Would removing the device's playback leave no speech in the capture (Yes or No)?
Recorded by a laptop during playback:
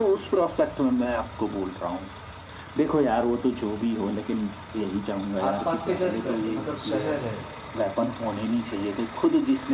No